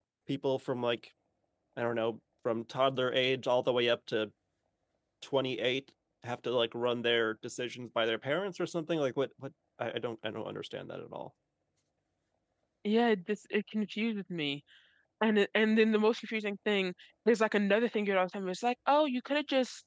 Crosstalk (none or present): none